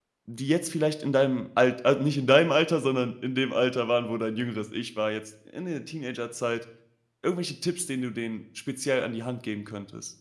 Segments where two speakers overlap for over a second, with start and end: none

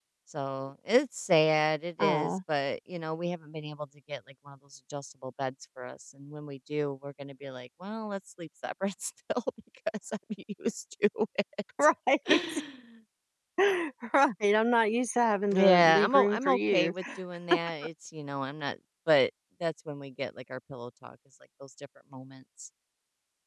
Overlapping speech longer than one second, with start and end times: 15.5-16.9

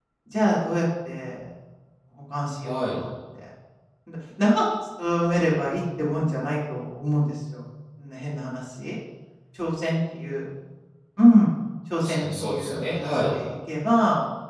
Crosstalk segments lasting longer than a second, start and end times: 12.0-13.3

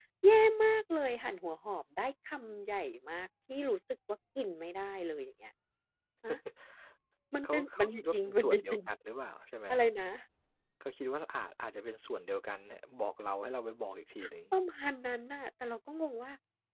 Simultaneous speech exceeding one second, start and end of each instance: 7.4-8.8

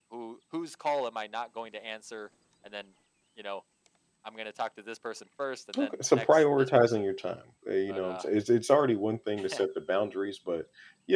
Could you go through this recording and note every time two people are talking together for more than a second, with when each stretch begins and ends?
5.8-7.0

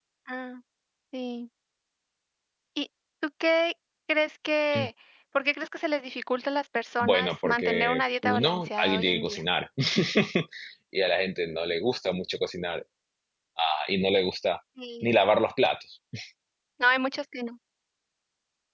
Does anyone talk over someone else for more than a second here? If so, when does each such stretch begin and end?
7.0-9.4

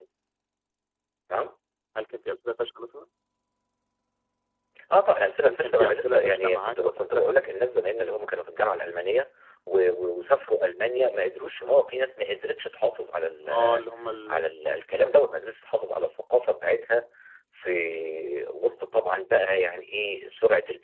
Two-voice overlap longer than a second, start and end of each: 5.4-7.3

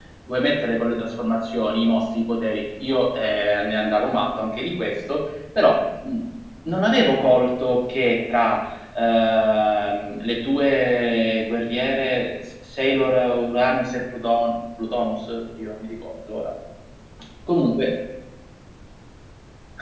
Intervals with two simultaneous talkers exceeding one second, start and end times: none

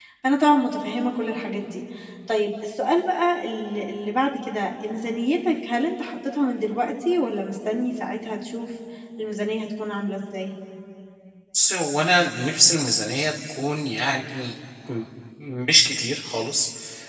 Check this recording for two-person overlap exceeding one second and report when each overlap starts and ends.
none

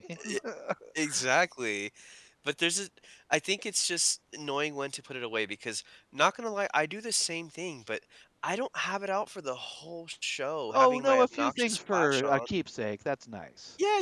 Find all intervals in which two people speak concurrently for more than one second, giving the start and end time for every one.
10.7-12.4

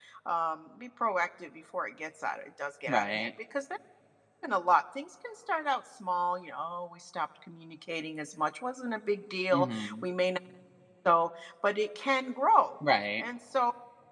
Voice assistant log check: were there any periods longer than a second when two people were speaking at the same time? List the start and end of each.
none

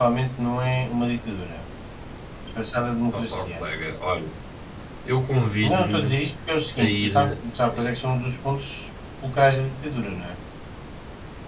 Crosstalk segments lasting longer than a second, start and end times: none

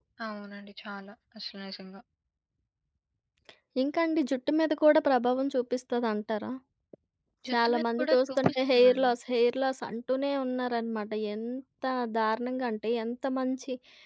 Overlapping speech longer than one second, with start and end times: 7.5-9.1

